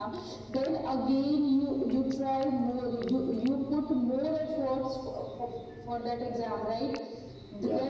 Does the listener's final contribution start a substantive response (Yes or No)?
No